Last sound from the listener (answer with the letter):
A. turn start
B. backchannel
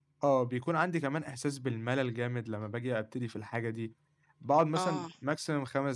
B